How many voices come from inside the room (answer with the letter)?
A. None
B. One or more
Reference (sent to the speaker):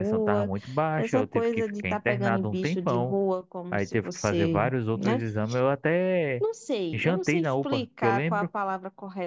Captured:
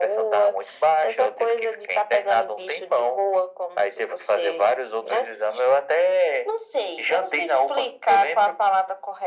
A